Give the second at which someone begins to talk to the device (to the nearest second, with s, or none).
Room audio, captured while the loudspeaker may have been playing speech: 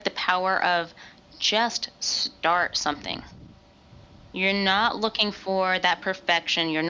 none